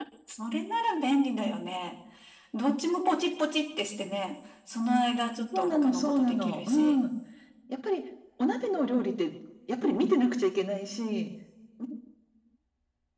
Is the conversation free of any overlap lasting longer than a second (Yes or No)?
No